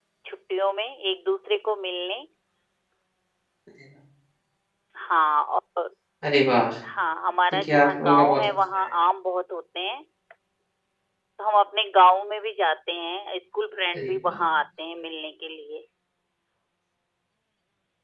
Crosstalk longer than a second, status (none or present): present